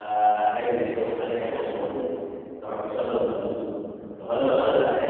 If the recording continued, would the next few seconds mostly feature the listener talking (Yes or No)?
No